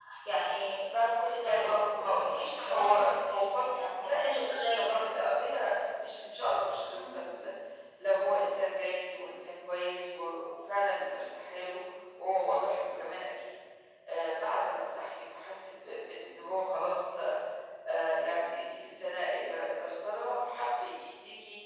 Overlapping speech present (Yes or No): Yes